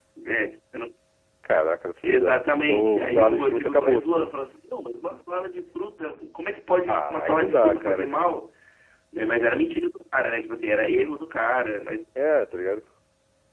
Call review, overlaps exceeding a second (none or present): present